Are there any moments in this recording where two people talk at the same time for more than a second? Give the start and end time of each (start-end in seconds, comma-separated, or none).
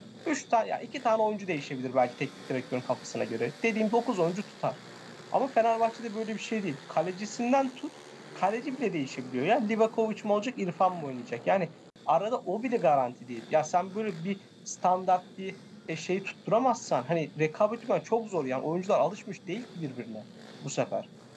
none